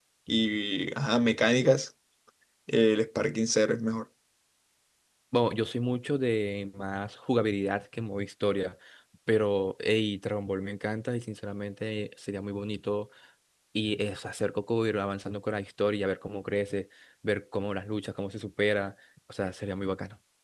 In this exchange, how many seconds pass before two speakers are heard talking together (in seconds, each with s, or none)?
none